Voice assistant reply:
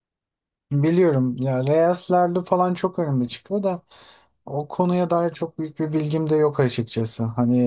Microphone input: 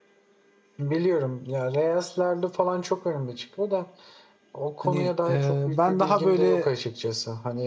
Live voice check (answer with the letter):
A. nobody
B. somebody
B